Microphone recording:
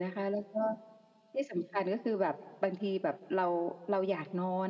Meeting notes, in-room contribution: none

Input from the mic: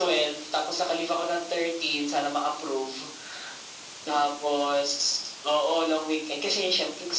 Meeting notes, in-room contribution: none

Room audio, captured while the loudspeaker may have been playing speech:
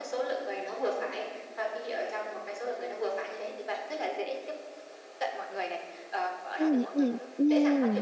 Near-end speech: present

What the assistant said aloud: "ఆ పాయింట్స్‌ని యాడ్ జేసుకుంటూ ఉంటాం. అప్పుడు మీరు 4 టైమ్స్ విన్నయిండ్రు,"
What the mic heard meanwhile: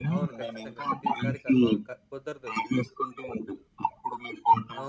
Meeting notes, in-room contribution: present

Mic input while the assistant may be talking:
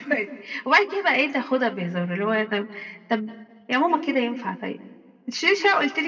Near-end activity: none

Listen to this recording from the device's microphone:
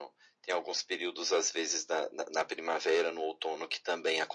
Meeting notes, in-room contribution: none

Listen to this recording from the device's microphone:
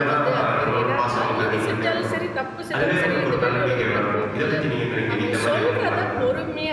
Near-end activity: present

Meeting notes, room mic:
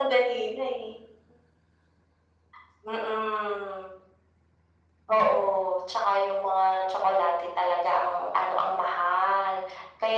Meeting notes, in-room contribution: none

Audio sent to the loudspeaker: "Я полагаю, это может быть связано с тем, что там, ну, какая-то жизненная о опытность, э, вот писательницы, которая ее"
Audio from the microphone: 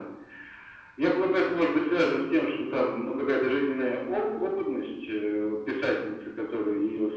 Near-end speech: none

